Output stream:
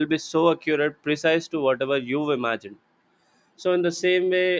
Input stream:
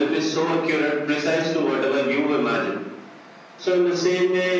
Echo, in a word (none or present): present